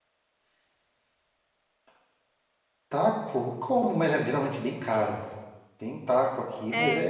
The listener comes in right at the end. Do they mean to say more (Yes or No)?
No